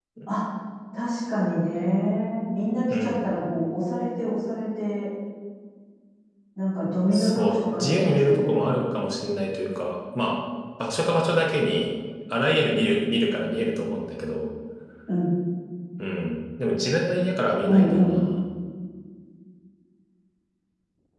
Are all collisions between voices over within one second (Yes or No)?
No